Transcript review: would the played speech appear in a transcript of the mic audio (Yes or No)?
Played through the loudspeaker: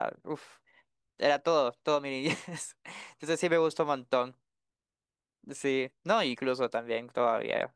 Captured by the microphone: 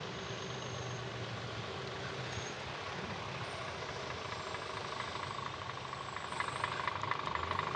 No